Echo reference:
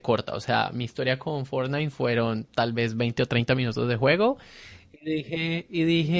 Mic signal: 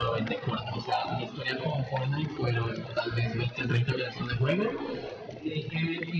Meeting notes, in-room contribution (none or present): none